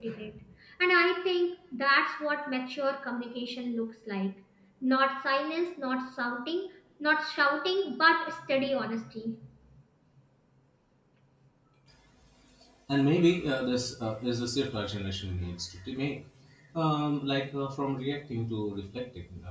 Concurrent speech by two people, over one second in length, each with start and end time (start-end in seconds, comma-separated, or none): none